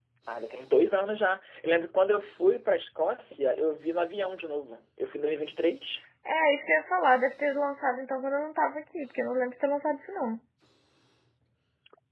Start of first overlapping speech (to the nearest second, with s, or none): none